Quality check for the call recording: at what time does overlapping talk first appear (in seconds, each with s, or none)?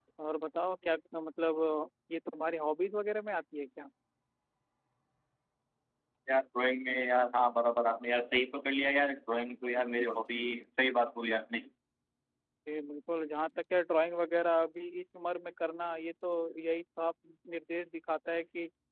none